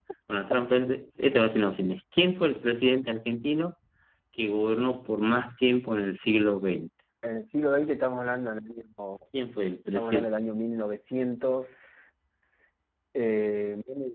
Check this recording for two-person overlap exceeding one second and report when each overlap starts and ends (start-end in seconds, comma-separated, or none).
none